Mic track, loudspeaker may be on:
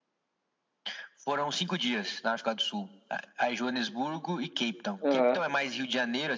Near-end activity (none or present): present